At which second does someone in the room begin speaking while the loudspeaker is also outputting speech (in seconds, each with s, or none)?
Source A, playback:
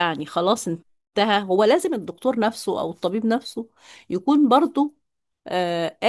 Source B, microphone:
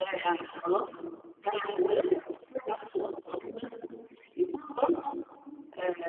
none